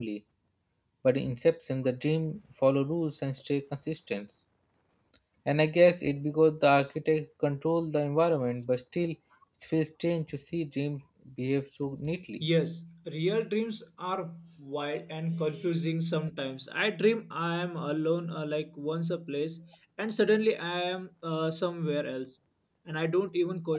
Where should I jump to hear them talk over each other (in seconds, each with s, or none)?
none